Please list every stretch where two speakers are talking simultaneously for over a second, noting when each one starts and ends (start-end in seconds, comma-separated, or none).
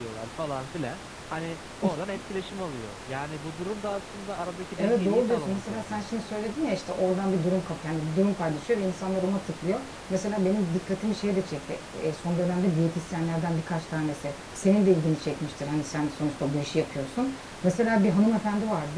4.8-6.0